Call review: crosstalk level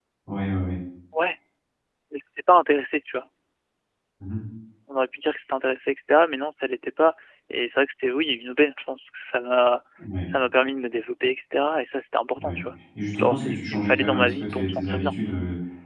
present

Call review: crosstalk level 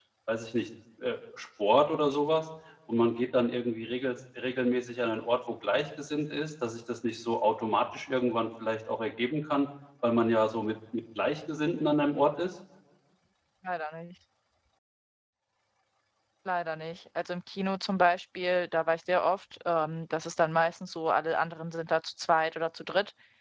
none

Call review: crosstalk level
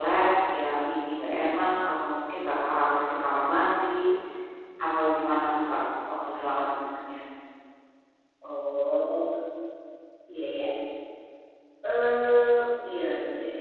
none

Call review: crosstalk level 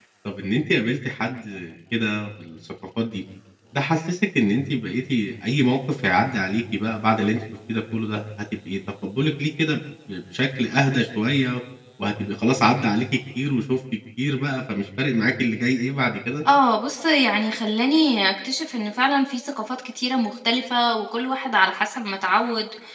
none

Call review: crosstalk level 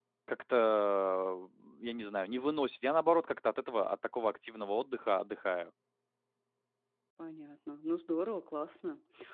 none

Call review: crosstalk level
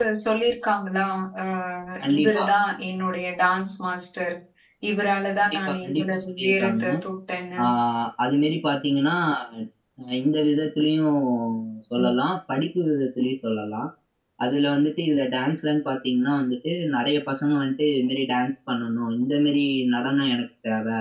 present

